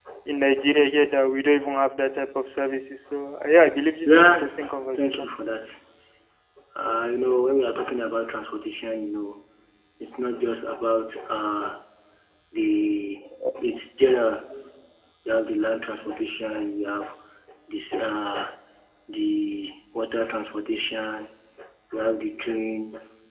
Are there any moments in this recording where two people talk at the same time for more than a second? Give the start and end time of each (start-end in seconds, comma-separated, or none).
4.0-5.3